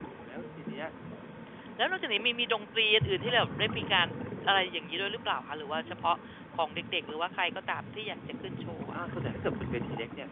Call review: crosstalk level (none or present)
none